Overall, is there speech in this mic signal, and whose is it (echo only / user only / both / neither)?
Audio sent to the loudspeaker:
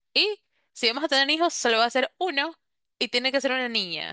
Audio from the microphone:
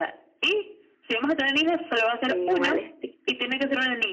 both